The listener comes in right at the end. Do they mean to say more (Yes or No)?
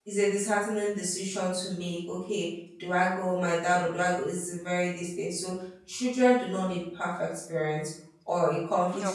No